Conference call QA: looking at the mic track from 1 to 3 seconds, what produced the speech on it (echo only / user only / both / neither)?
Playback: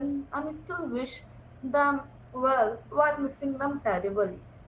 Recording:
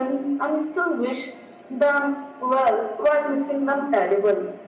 echo only